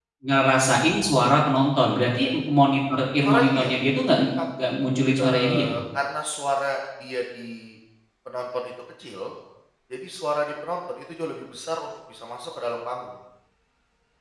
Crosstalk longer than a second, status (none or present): none